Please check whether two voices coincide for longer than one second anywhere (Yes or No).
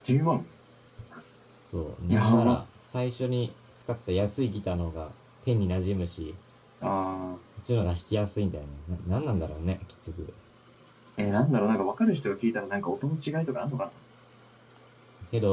No